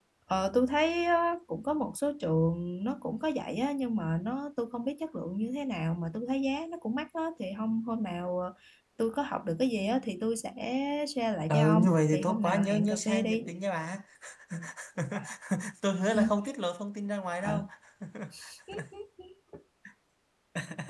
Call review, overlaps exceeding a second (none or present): present